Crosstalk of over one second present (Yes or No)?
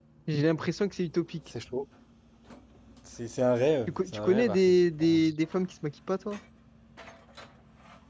Yes